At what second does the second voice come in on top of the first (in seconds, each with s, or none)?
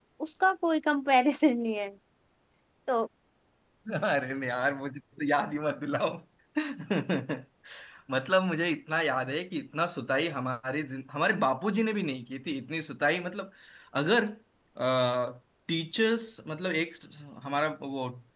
none